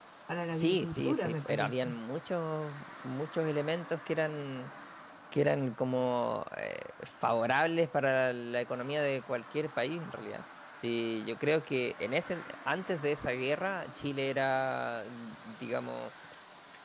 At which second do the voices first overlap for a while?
0.5 s

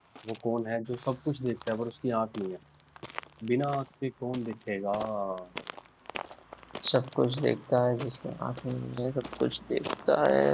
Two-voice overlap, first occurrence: none

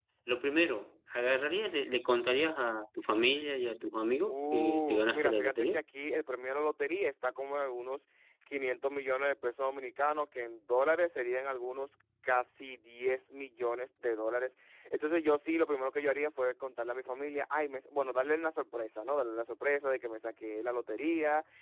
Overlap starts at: 4.3 s

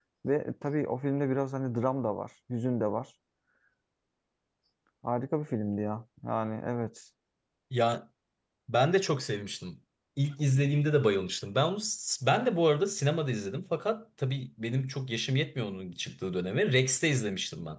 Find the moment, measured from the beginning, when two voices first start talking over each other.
none

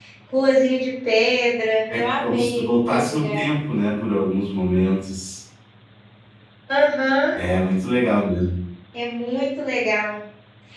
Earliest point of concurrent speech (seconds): 1.9 s

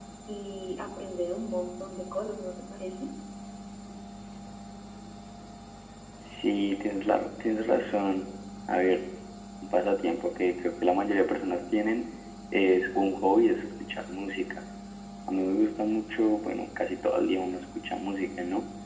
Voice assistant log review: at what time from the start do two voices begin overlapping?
none

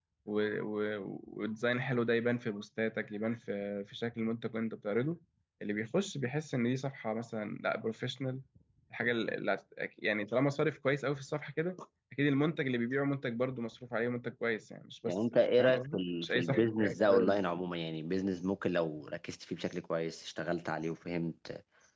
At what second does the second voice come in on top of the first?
15.1 s

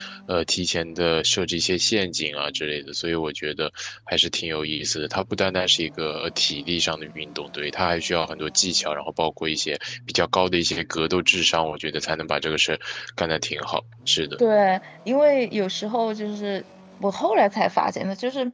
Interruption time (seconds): none

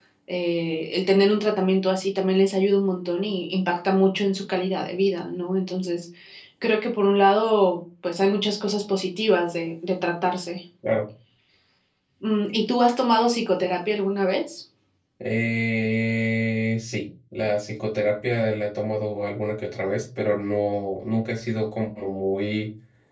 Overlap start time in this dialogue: none

